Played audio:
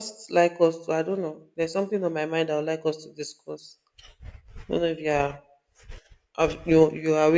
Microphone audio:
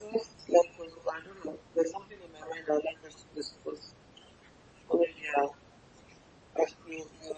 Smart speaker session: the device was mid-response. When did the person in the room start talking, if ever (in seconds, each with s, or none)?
none